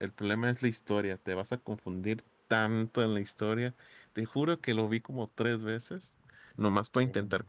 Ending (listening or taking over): listening